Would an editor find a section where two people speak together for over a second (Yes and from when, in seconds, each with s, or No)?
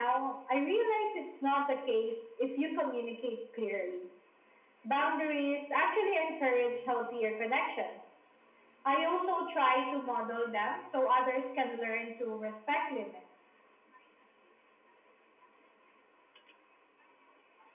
No